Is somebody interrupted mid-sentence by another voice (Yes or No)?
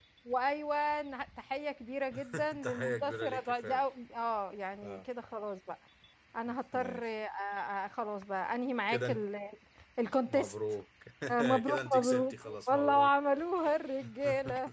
Yes